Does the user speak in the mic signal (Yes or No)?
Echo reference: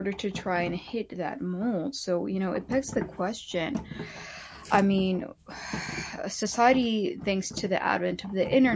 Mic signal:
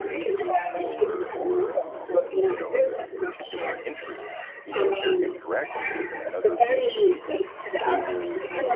Yes